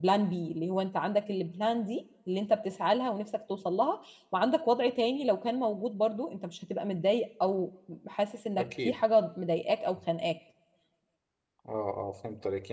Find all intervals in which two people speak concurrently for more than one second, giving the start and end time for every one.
none

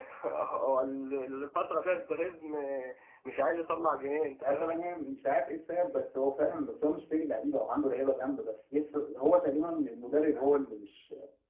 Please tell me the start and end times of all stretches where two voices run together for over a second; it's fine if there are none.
none

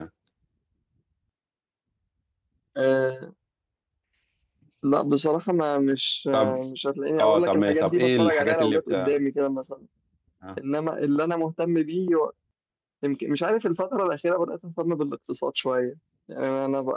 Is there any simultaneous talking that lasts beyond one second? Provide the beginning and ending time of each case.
7.2-8.9

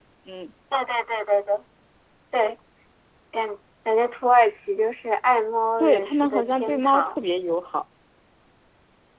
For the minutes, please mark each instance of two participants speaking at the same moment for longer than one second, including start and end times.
5.8-7.2

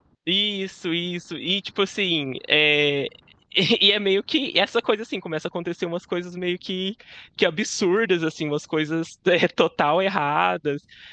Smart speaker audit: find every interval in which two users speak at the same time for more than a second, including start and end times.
none

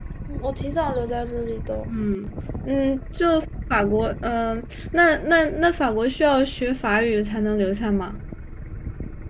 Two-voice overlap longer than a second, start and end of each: none

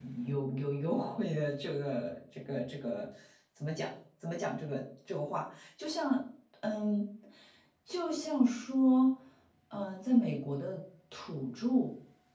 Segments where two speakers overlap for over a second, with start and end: none

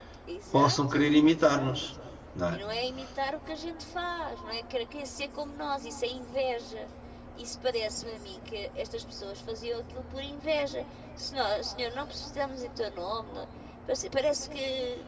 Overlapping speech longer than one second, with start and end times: 0.5-1.8

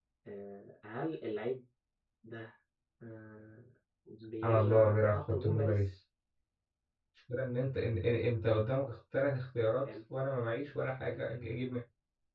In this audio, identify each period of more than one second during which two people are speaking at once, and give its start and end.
4.4-5.8

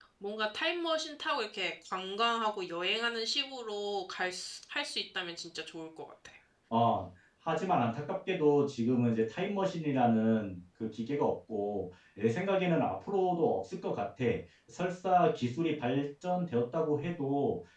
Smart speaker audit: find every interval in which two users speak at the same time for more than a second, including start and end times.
none

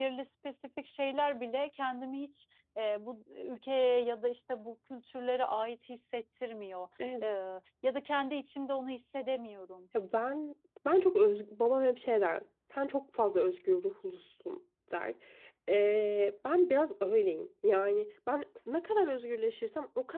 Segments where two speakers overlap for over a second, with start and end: none

